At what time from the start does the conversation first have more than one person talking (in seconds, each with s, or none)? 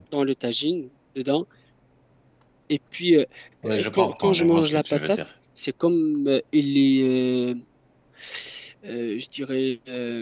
3.6 s